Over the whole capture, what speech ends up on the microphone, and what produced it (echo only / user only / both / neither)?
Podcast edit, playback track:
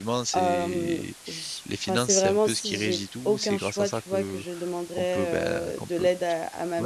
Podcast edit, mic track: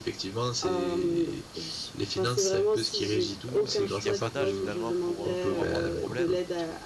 both